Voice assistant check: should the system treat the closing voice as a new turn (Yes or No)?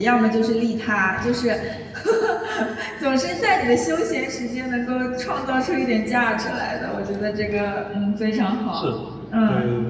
Yes